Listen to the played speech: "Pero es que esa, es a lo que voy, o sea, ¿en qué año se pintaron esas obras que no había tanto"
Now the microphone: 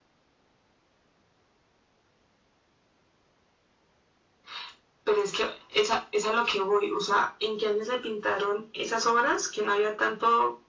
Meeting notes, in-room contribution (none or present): none